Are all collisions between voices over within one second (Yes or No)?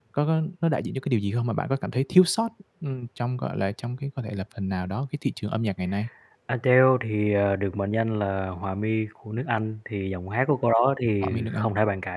Yes